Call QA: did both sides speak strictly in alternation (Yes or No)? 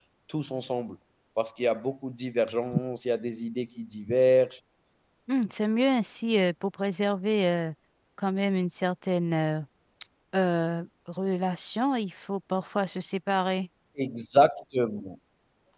Yes